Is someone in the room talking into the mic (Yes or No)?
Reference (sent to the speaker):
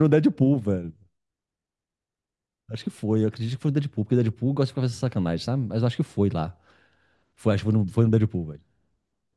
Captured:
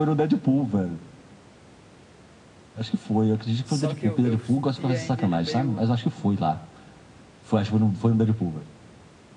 Yes